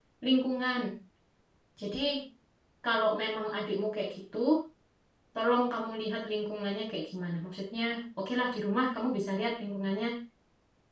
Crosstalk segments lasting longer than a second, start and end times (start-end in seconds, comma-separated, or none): none